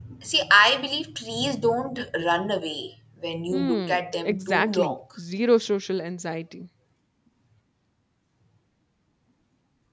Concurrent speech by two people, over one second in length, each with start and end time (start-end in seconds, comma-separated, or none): 3.5-5.0